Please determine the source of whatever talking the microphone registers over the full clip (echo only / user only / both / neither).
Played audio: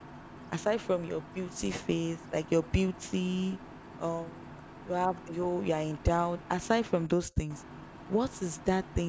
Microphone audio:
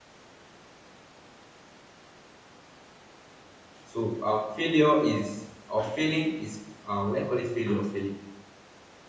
user only